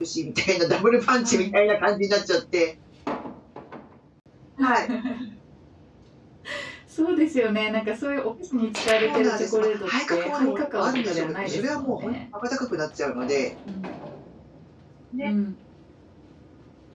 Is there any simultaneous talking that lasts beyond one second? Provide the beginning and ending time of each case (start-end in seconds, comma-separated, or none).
9.0-12.1